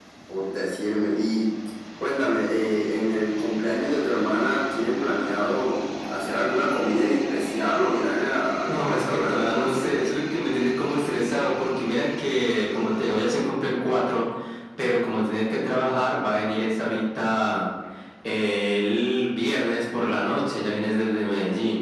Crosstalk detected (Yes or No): Yes